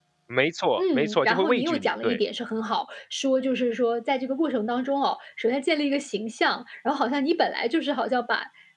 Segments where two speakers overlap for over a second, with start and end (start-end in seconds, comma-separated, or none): 0.8-2.2